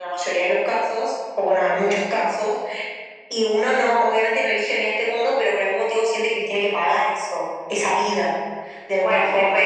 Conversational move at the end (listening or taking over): taking over